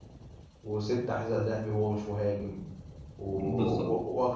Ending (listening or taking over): listening